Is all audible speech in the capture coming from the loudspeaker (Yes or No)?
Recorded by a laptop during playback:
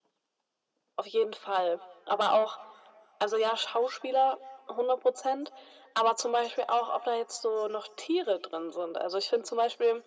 Yes